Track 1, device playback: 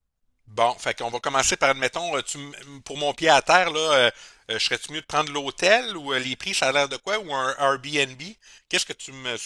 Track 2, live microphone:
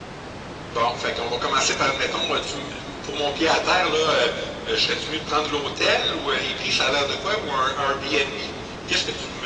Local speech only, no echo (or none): none